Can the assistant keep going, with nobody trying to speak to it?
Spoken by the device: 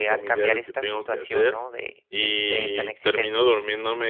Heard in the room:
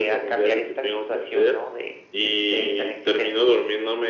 Yes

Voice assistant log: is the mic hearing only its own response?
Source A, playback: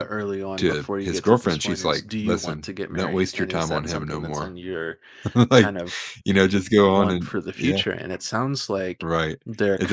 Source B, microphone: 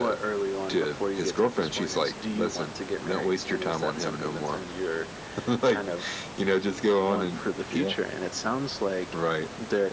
Yes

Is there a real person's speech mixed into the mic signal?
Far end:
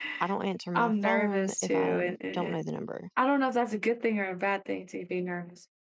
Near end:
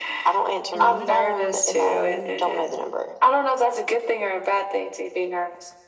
Yes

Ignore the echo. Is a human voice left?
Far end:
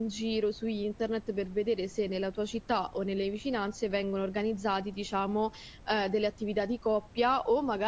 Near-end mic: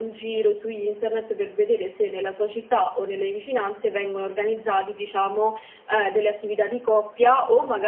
No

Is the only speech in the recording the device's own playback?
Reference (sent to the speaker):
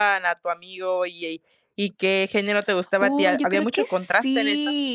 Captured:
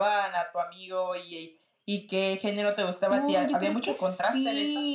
Yes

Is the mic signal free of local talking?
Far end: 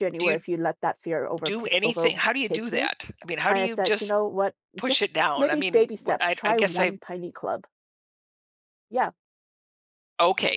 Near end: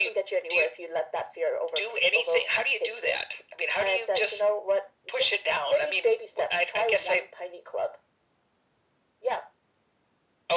Yes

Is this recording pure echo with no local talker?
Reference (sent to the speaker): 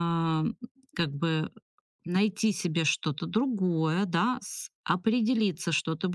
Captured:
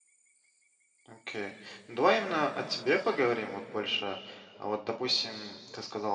No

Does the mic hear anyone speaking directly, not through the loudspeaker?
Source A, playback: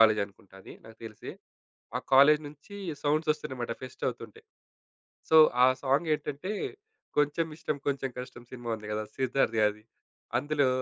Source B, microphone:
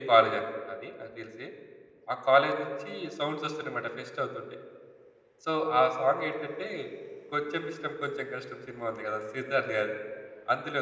No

